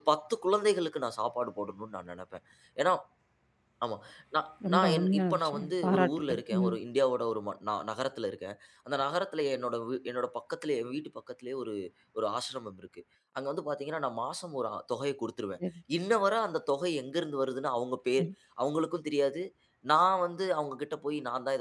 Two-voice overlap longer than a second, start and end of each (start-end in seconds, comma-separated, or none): 4.6-6.8